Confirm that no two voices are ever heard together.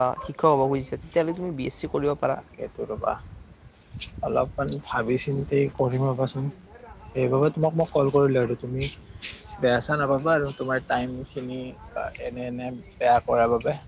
Yes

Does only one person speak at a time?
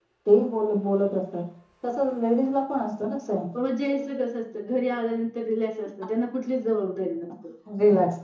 Yes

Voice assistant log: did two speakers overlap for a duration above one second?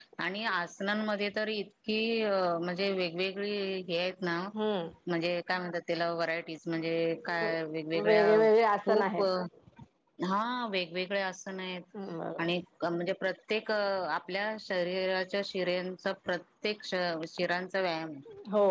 No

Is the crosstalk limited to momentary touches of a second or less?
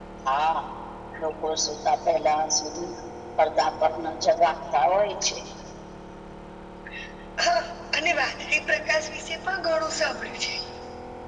Yes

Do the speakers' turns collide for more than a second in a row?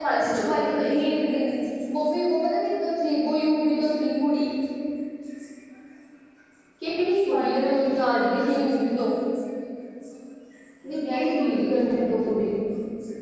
Yes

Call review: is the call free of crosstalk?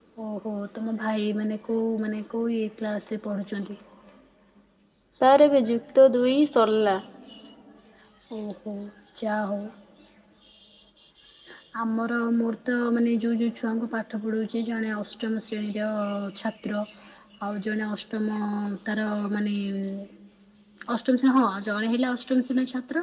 Yes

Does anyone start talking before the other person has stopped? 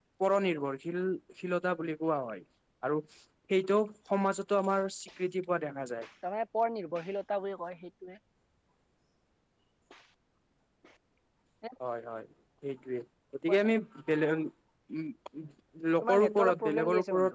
Yes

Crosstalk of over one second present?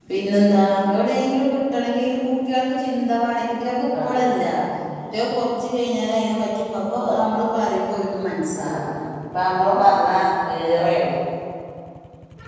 No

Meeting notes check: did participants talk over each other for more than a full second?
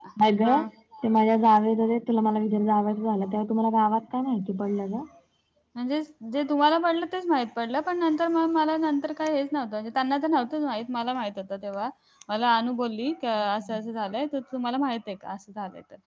No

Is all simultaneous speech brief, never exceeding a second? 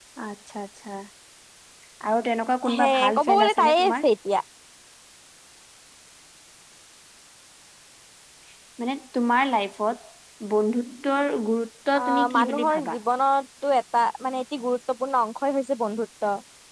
No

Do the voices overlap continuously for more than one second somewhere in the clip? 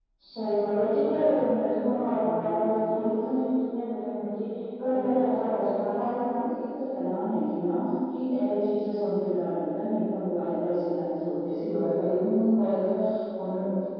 Yes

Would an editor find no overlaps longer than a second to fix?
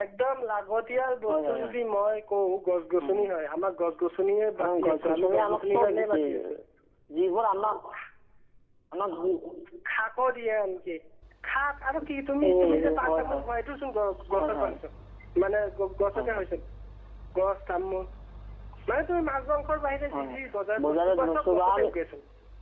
No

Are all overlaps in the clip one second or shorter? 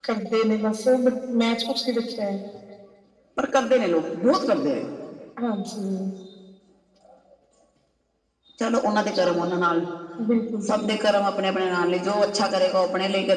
Yes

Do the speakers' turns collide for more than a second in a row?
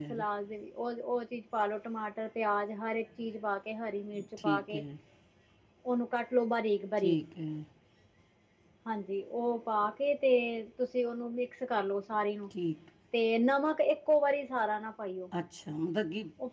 No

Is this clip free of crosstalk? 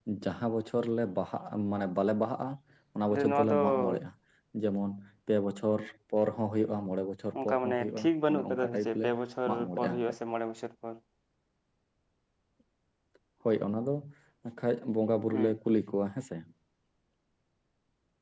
No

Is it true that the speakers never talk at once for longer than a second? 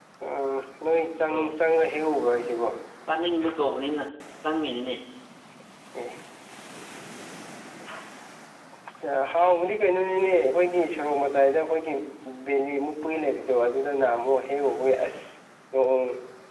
Yes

